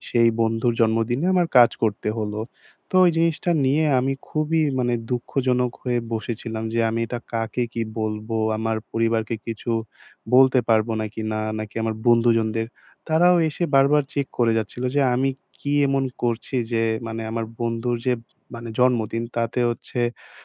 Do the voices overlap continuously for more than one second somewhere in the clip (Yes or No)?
No